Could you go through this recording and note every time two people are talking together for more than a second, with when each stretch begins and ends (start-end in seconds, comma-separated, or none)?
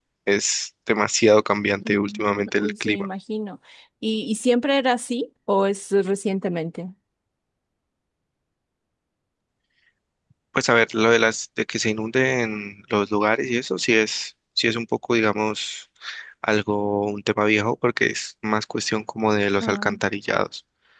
1.8-3.1